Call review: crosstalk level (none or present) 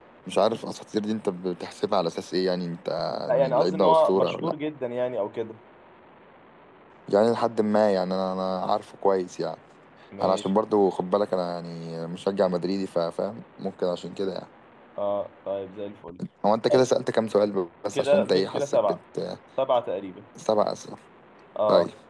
present